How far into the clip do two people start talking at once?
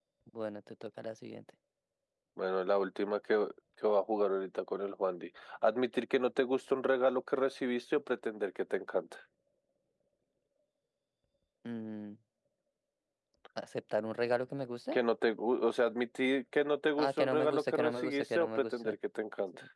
17 s

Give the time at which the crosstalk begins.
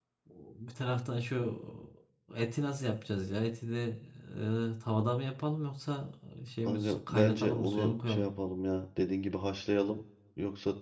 7 s

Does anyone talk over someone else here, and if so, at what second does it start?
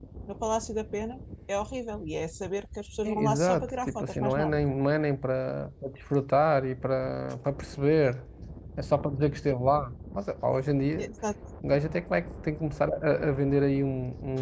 3 s

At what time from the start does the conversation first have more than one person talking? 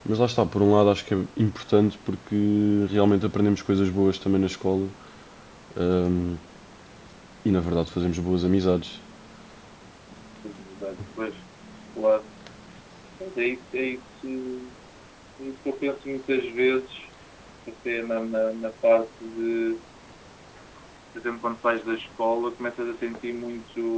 none

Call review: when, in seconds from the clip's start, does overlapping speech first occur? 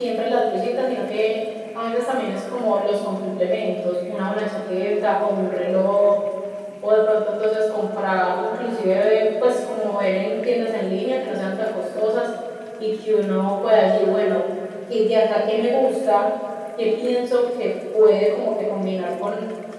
none

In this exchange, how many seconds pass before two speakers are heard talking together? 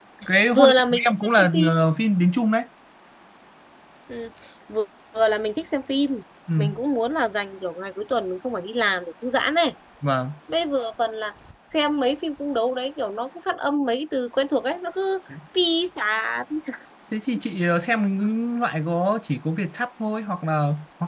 1 s

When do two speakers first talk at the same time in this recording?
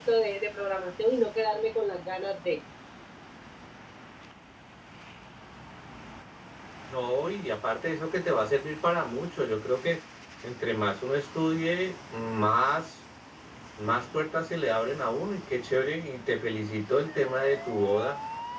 none

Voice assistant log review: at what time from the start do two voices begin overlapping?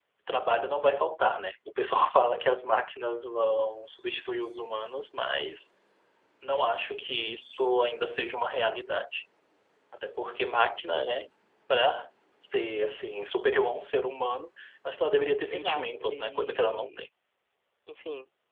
15 s

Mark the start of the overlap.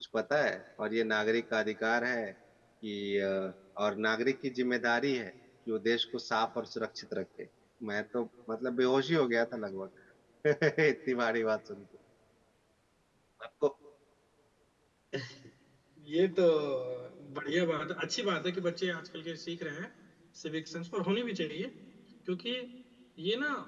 none

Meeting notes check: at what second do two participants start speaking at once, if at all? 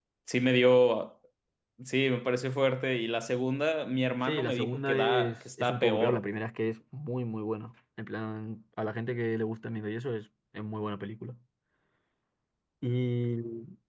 4 s

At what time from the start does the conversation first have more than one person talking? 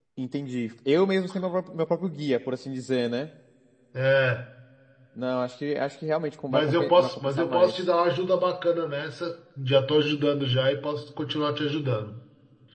7 s

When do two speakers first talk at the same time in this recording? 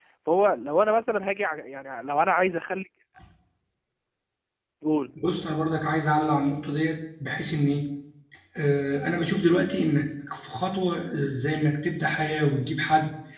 none

